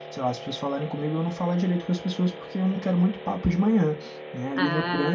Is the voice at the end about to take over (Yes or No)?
No